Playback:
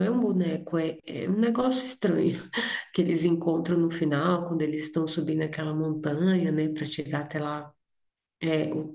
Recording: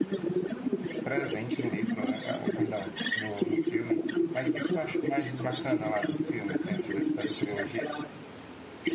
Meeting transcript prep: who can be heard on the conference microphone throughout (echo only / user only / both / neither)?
both